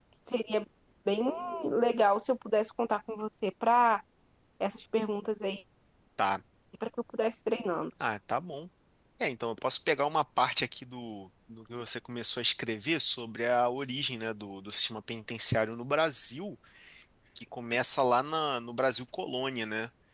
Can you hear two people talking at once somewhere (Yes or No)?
No